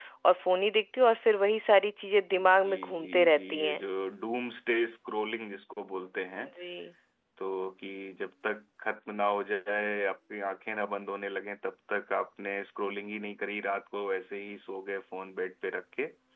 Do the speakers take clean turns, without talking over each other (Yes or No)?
No